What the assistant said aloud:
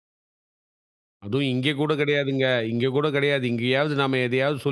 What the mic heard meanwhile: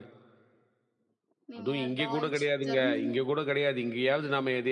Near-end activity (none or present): present